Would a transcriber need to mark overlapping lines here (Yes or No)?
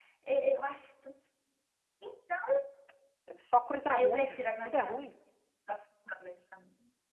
Yes